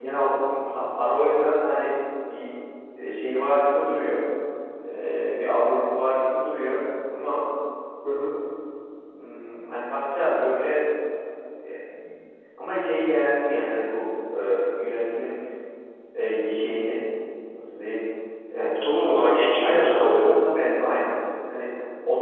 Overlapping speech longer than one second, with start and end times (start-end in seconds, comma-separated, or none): 19.0-20.3